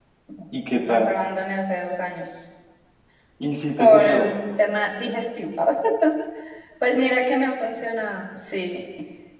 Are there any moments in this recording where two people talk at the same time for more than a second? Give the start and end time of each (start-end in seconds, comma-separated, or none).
none